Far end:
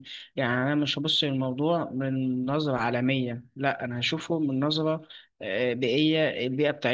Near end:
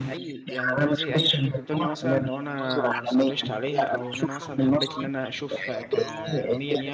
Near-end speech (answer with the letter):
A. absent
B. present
B